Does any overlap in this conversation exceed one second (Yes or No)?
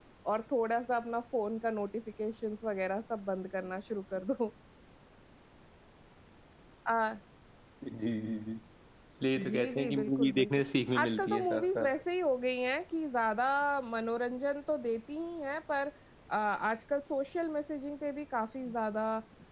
Yes